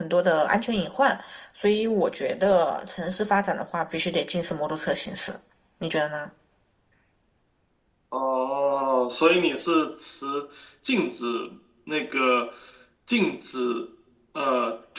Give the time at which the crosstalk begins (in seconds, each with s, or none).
none